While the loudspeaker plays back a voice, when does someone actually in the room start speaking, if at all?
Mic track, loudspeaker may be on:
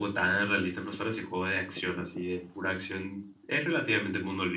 none

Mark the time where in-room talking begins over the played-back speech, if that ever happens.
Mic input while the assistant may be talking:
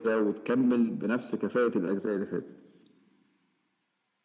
none

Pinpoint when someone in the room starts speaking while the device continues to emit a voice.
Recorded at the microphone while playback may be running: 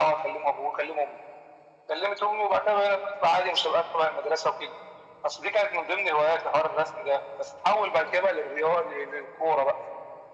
none

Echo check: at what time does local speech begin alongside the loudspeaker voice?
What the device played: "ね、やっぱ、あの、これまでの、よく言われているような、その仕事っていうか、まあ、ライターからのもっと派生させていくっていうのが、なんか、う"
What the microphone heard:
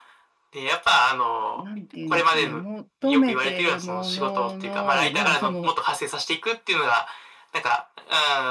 1.5 s

